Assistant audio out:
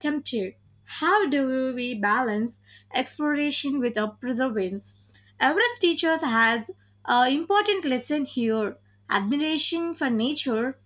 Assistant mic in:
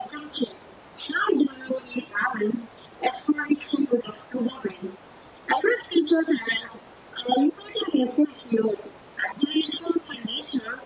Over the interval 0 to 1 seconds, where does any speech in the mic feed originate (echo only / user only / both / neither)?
echo only